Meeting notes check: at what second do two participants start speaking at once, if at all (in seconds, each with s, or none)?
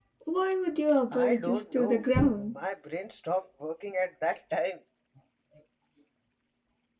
1.1 s